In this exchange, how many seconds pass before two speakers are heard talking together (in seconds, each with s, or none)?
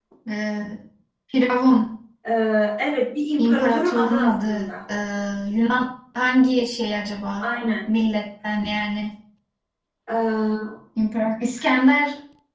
3.4 s